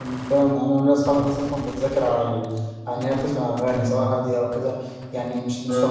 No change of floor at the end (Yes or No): Yes